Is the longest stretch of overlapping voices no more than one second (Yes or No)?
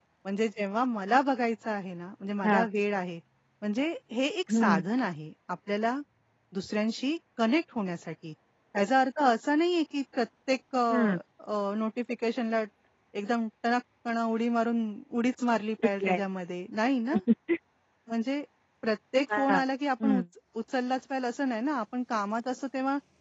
Yes